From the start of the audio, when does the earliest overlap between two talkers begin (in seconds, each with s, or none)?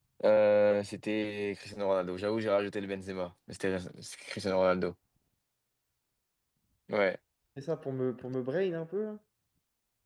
none